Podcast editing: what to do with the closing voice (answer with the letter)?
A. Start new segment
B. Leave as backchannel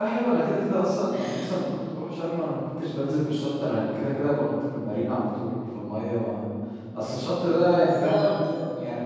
B